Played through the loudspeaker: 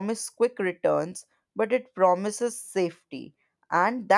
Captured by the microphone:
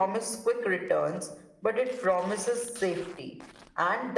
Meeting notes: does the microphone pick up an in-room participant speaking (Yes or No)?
No